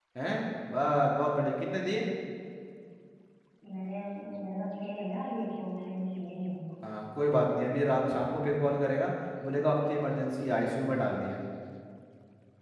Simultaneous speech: No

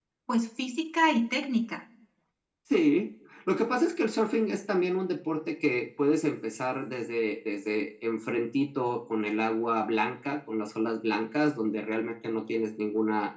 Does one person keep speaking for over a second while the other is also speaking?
No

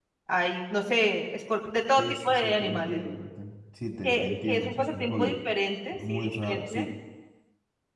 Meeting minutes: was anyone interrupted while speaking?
Yes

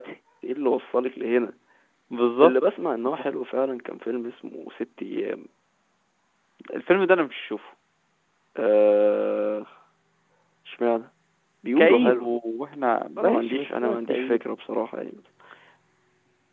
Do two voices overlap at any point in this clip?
Yes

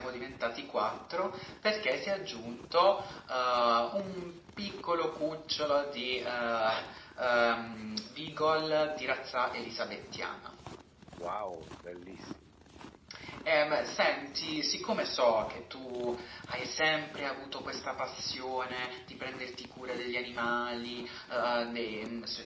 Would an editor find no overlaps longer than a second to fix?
Yes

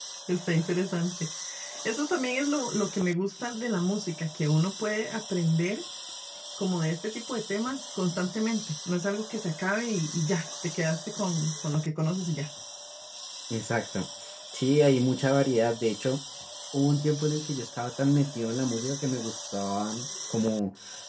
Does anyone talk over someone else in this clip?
No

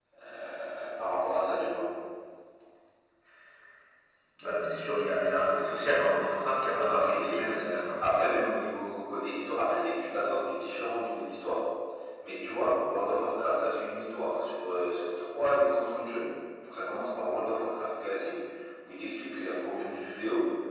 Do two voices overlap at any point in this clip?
Yes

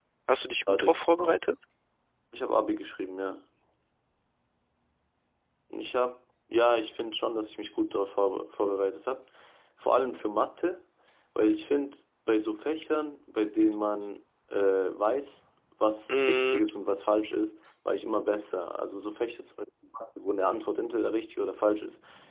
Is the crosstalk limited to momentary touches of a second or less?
Yes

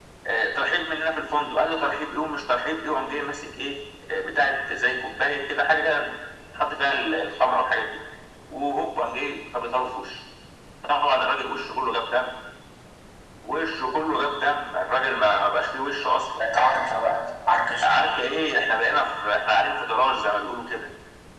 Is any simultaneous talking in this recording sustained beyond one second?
No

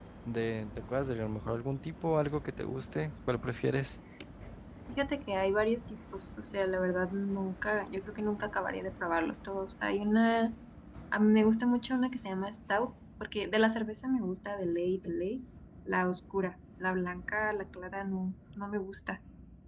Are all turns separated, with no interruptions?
Yes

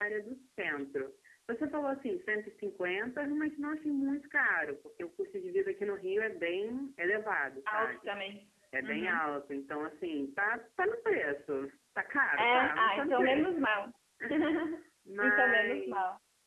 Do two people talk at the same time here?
Yes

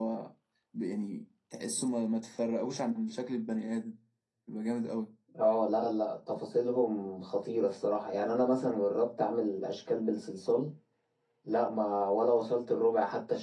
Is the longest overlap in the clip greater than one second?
No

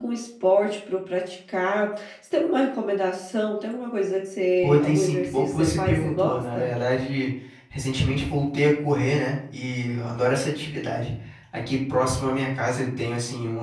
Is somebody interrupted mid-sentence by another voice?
Yes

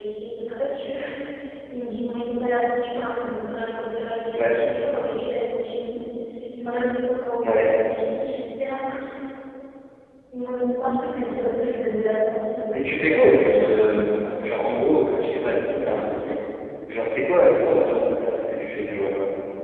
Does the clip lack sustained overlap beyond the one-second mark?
No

